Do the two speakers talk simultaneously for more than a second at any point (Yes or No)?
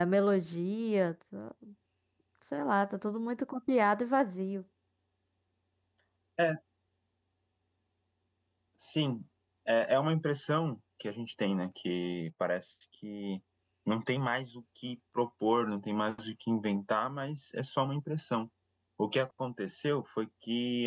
No